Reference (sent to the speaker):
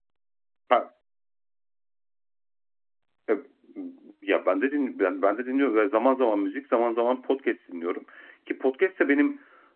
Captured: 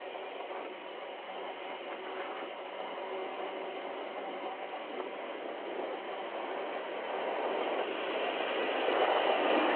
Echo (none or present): none